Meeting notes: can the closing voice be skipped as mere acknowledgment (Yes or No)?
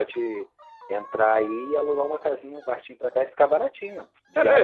No